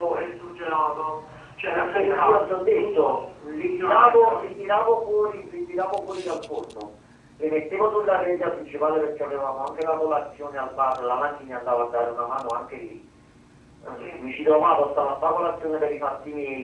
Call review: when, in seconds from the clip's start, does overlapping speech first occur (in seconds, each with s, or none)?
1.8 s